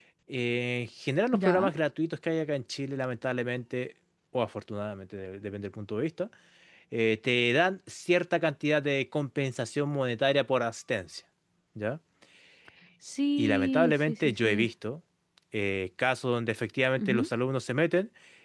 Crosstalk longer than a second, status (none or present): present